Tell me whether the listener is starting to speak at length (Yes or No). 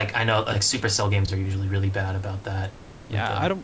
Yes